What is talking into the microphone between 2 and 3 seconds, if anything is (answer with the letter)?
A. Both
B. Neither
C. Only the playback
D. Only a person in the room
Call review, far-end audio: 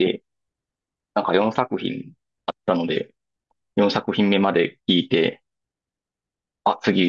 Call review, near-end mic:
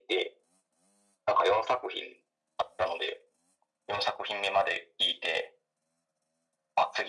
C